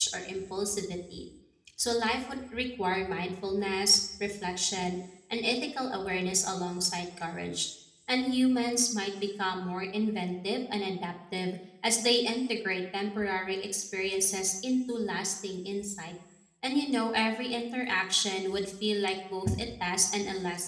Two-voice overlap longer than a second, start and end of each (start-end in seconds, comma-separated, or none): none